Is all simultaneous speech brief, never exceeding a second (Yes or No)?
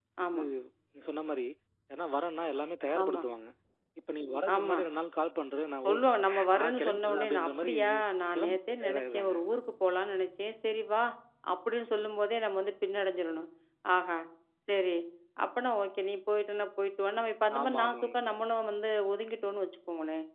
No